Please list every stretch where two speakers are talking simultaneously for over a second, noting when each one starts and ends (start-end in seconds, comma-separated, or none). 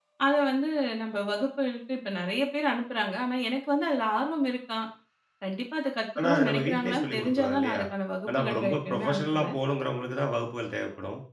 6.2-7.8, 8.3-9.6